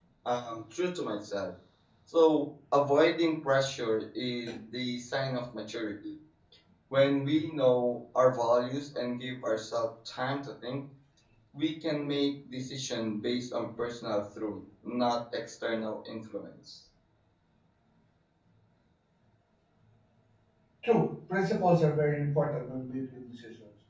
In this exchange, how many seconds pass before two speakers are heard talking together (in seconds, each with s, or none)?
none